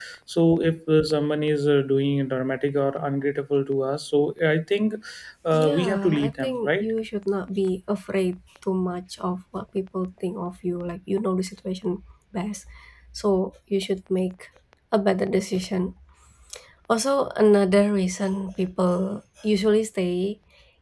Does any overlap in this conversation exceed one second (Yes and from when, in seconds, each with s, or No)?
Yes, from 5.5 s